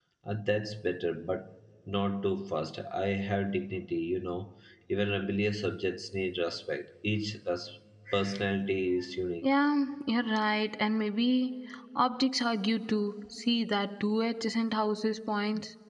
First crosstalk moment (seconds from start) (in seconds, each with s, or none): none